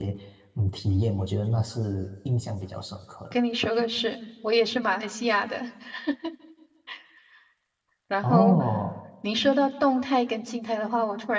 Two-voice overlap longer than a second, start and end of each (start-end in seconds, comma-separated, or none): none